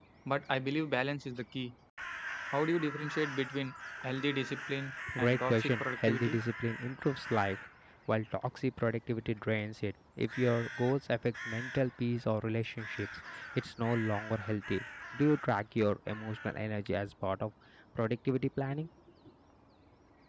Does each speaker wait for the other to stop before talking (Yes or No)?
No